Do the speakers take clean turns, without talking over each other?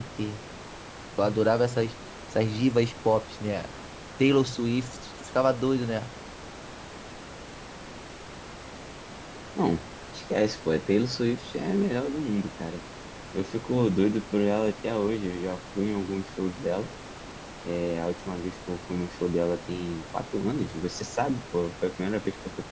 Yes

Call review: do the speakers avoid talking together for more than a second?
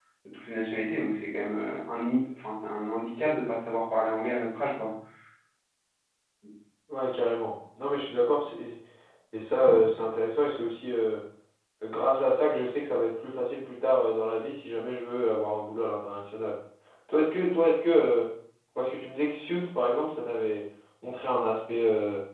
Yes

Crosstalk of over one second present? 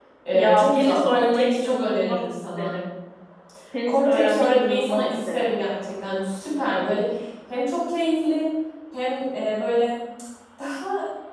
Yes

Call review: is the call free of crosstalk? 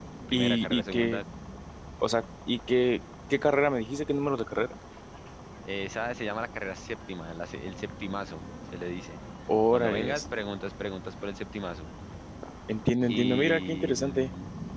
No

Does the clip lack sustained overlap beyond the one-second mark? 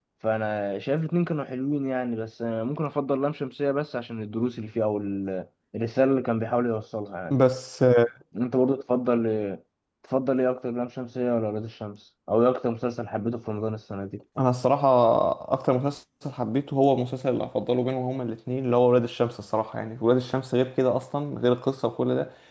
Yes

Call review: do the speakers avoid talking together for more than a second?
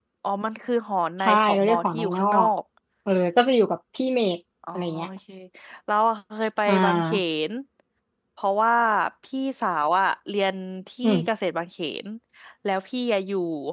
No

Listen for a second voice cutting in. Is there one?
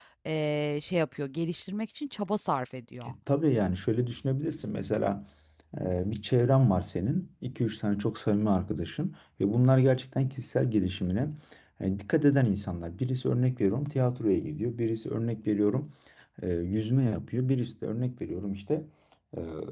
No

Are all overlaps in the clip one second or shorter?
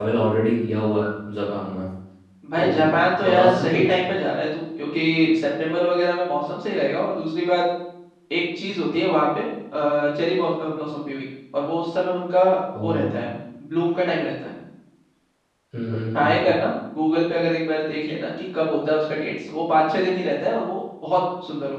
No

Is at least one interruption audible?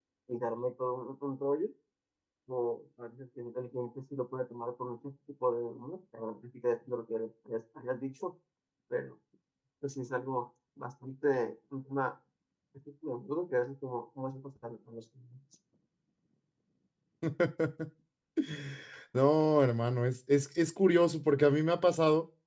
No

